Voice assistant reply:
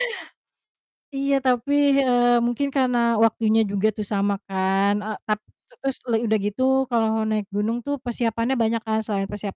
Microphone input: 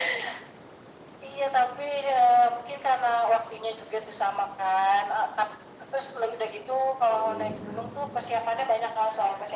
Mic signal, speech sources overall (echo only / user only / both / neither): both